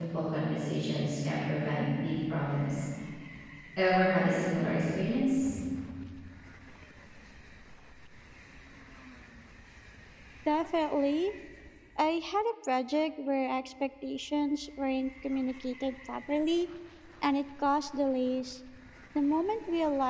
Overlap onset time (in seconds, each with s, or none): none